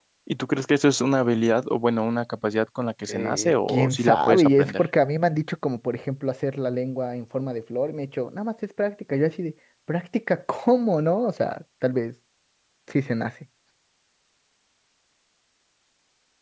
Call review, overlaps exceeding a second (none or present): present